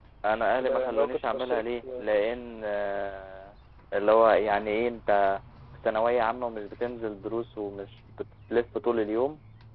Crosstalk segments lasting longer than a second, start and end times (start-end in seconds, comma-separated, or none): 0.6-2.3